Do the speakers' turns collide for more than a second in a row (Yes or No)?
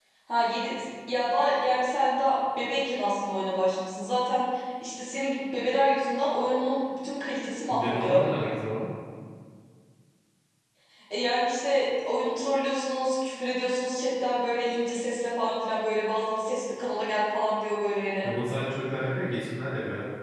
No